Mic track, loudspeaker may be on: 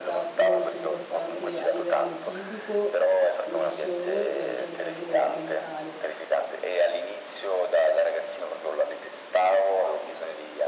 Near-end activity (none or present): present